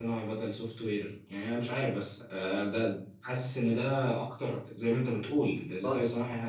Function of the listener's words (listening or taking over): listening